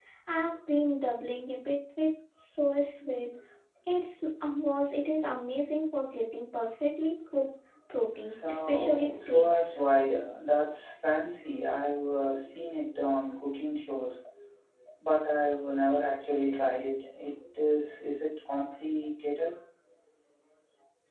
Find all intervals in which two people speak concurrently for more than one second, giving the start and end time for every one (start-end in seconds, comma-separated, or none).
8.2-9.8